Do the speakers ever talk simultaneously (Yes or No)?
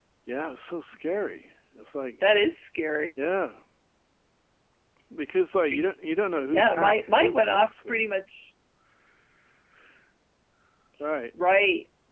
Yes